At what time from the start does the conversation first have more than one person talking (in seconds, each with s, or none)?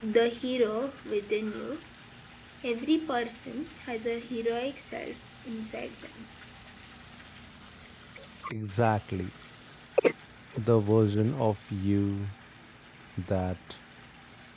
none